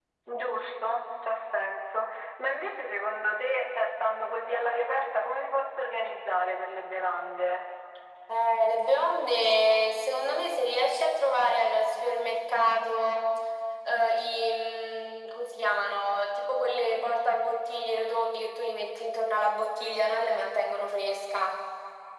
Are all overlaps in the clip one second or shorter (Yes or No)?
Yes